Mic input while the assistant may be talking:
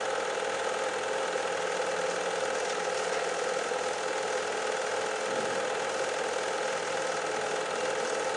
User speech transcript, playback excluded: none

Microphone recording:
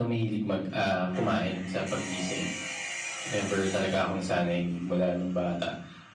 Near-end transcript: none

